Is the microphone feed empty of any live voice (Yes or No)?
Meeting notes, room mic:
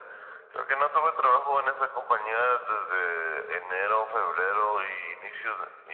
Yes